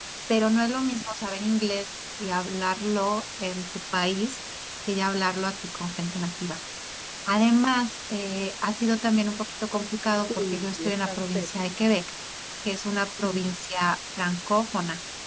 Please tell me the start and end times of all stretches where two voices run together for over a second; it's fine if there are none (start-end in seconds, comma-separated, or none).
10.3-11.5